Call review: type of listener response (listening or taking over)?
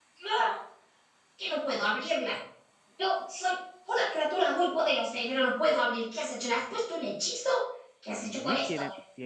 taking over